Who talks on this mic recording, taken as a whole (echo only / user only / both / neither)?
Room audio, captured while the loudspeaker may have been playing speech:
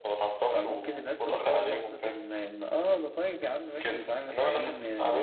both